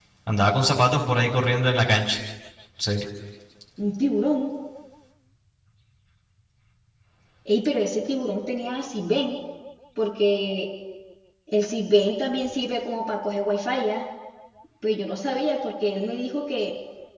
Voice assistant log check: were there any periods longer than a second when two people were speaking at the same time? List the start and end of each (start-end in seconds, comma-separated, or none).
none